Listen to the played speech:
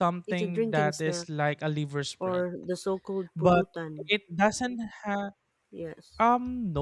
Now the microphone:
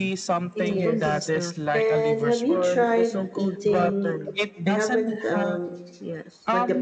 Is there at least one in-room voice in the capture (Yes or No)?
Yes